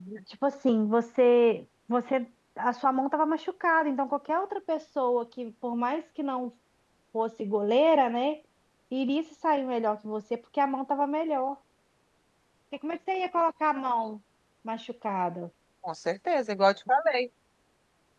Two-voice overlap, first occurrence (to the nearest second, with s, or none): none